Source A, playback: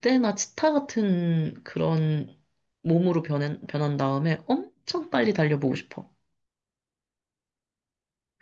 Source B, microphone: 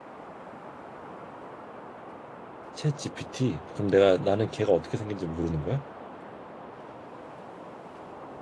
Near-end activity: present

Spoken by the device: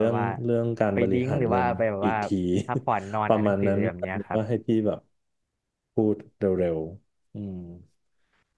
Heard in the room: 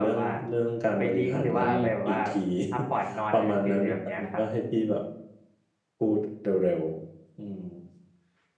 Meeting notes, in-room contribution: present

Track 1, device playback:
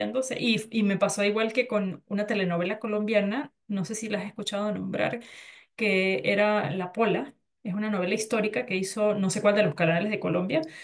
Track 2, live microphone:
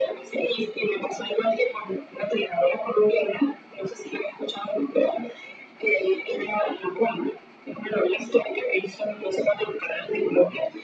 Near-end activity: none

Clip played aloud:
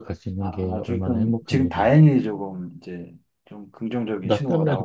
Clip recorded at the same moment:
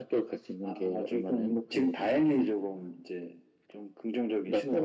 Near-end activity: none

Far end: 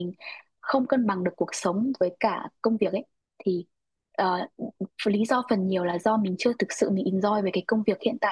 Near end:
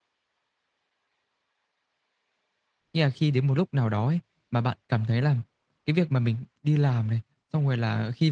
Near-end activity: present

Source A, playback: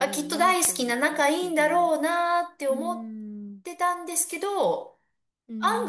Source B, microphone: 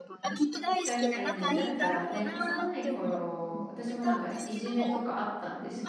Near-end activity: present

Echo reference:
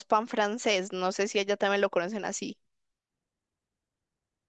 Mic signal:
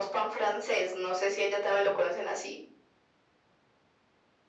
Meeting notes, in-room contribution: none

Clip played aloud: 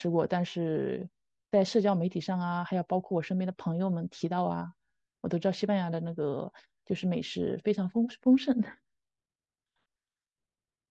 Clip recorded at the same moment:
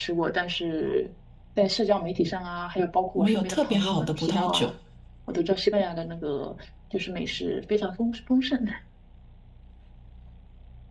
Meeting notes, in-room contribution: present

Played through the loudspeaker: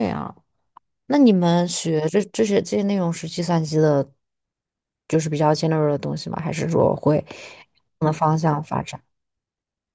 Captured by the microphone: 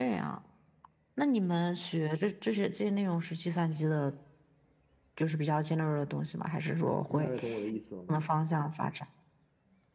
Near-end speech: present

